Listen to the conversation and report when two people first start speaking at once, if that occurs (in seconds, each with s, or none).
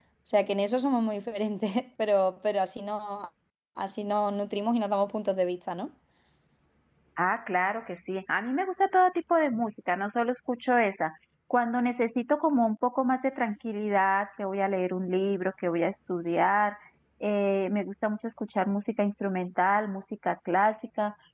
none